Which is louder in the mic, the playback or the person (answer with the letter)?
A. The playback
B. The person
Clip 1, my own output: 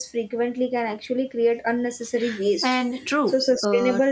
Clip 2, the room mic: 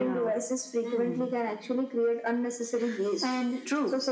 A